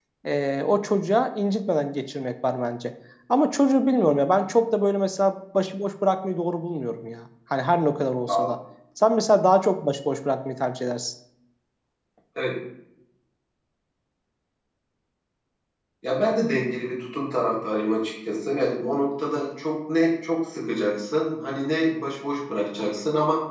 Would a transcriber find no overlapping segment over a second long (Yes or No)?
Yes